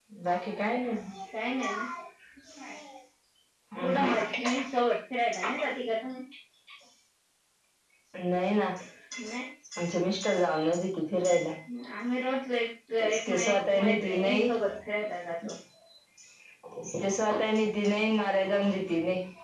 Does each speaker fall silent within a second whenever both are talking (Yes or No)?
No